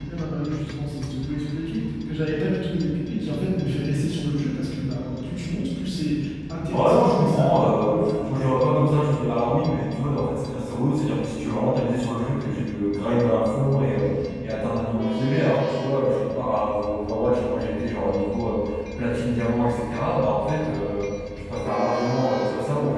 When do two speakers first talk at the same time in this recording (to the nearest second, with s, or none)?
7 s